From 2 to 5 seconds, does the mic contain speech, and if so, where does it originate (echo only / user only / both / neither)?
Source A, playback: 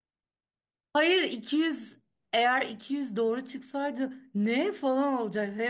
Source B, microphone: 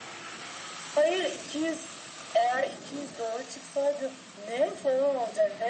echo only